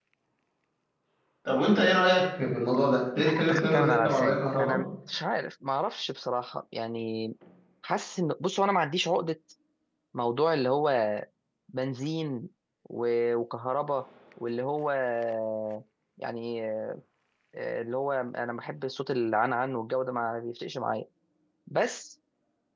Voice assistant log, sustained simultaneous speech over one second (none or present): present